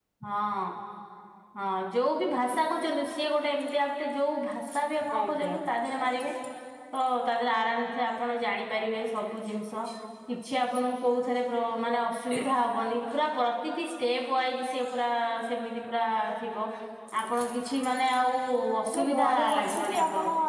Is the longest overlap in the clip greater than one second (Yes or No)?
Yes